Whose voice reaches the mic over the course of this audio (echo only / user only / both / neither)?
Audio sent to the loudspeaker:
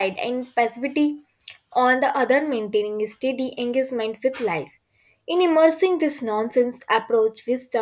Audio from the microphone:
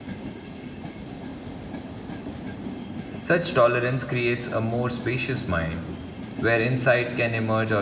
user only